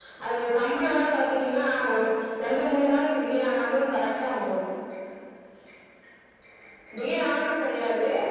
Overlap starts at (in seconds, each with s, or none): none